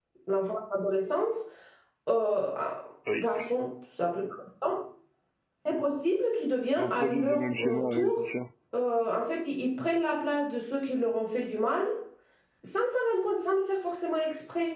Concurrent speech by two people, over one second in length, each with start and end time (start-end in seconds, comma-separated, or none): 6.8-8.2